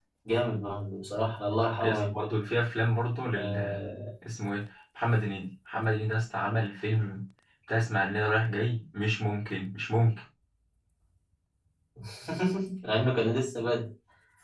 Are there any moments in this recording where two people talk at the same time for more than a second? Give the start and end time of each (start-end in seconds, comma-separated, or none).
none